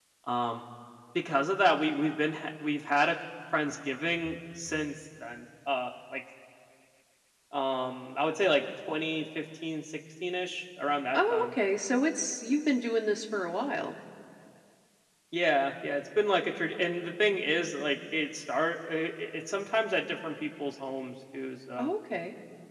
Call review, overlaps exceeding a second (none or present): none